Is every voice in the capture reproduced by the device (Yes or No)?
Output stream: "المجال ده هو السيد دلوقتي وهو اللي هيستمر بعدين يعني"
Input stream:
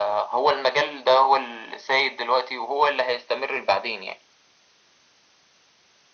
Yes